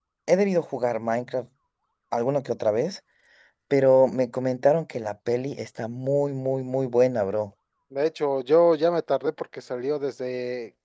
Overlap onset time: none

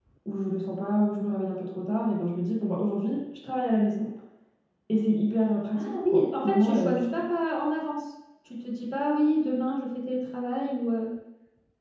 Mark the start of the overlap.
5.8 s

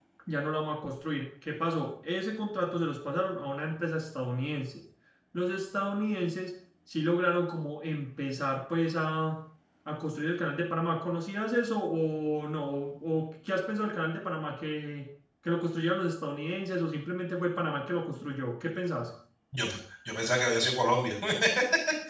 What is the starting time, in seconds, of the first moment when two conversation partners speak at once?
none

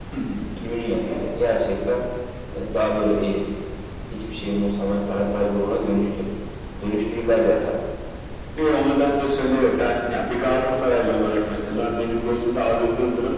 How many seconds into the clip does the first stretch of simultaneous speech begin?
none

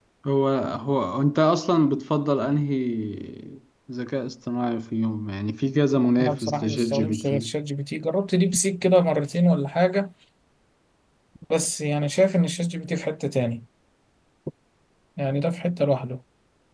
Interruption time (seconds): 6.0 s

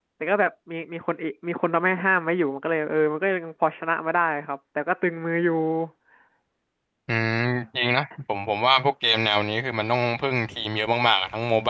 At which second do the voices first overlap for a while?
none

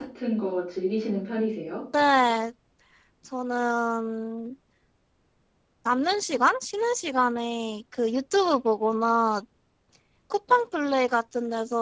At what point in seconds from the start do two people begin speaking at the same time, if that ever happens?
none

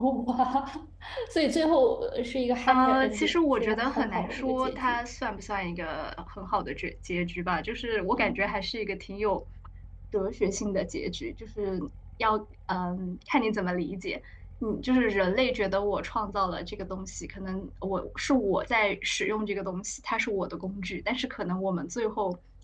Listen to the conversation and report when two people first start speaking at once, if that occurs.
2.7 s

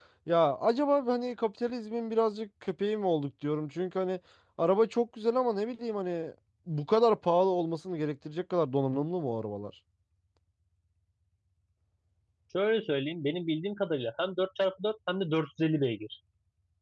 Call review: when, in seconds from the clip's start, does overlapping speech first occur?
none

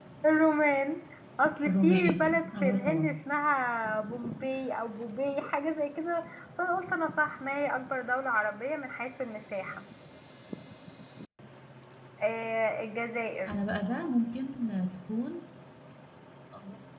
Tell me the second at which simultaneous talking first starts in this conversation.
1.7 s

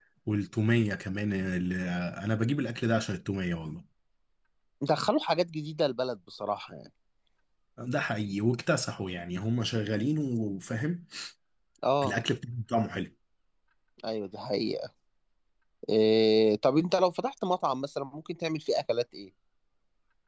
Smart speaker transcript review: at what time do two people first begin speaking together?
none

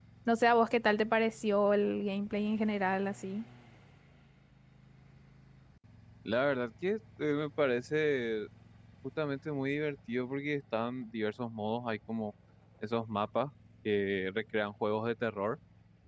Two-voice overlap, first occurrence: none

